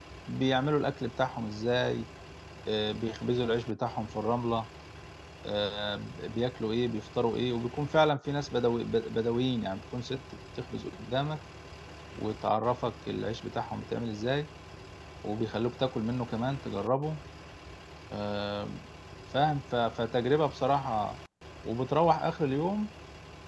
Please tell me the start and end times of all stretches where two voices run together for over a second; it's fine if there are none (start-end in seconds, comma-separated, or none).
none